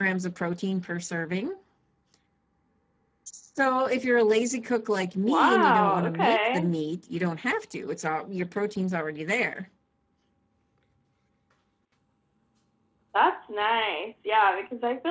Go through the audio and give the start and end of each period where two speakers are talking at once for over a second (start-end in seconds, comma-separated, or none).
5.2-6.7